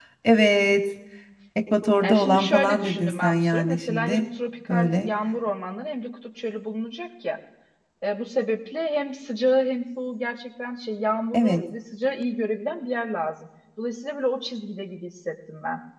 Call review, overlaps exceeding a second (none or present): present